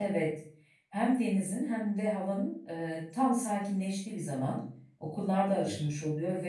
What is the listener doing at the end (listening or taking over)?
listening